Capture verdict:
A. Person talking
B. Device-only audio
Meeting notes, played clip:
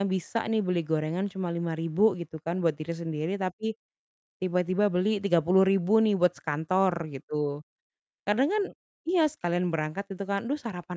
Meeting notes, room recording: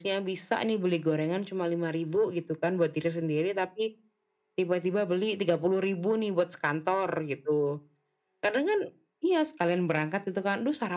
B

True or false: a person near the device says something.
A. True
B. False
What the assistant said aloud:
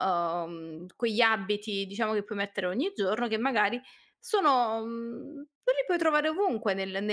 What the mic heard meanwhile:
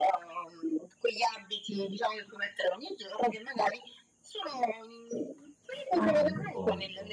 A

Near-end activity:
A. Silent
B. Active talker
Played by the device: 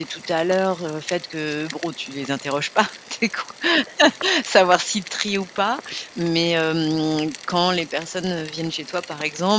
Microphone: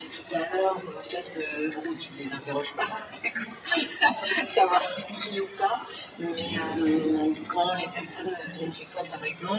B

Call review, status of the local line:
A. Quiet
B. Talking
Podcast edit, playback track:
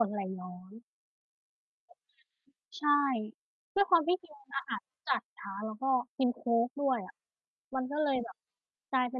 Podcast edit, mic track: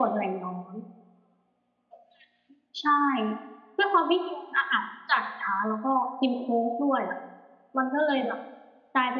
A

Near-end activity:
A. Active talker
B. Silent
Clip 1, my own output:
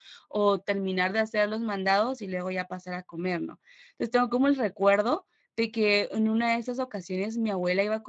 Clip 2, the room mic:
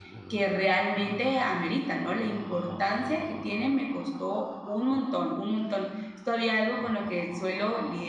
A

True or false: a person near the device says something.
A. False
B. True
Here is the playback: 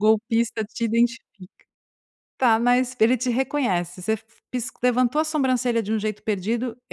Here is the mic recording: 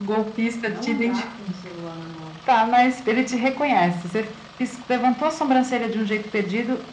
B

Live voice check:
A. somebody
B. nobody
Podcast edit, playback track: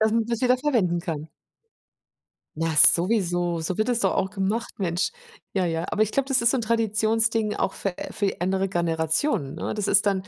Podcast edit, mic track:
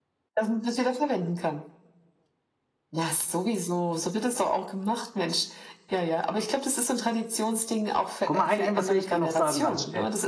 A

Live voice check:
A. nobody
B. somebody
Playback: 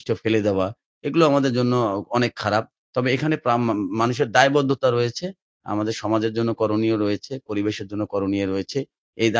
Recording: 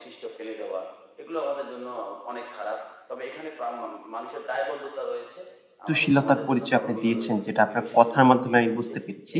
B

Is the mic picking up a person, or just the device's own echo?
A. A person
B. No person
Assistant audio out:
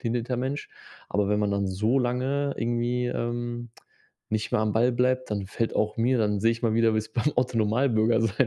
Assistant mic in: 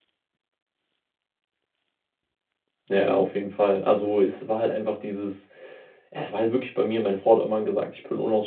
A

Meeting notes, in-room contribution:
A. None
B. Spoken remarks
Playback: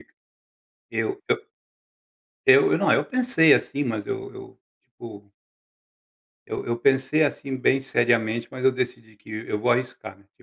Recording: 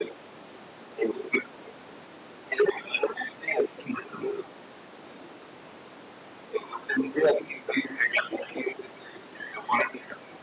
A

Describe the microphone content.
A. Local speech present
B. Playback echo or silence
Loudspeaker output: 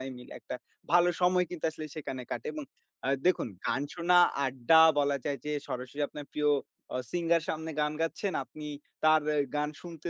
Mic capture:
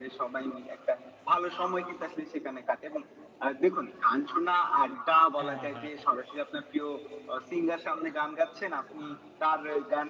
A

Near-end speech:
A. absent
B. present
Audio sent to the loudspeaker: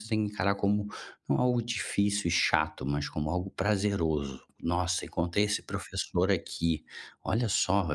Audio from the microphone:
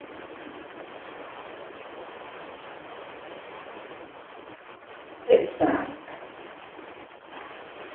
B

